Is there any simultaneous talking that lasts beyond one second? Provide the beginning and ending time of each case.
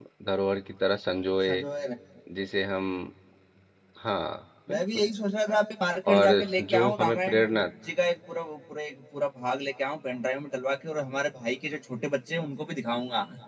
6.1-7.4

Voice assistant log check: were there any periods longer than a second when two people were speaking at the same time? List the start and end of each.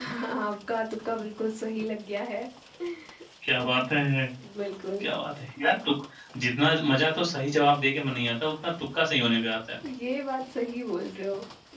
none

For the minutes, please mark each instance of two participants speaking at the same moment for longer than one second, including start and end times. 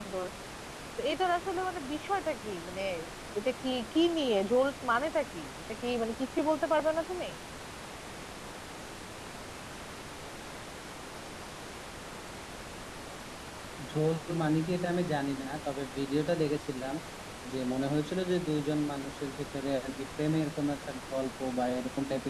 none

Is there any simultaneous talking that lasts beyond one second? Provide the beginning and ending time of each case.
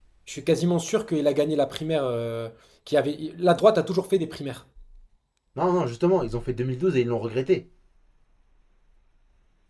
none

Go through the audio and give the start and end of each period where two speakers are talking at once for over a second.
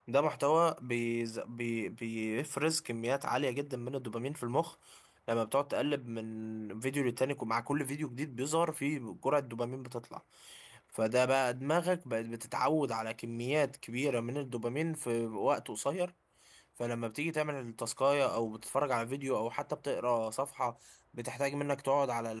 none

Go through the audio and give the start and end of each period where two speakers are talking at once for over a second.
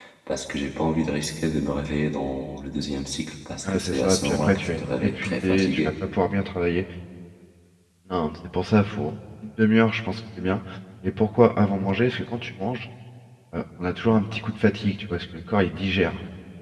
3.6-5.9

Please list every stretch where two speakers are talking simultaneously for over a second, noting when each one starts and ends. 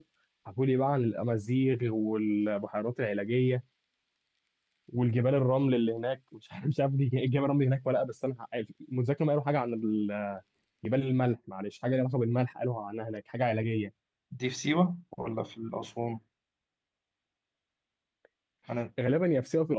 none

